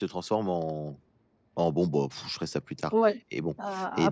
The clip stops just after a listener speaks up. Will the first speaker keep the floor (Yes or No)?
No